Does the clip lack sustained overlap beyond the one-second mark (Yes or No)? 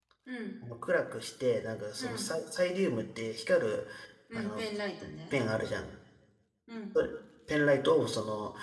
Yes